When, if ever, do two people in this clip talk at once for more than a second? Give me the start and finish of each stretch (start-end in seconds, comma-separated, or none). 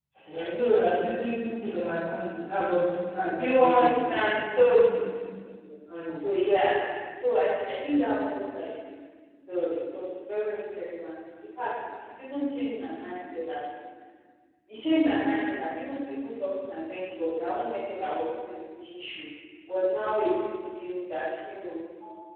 3.4-4.9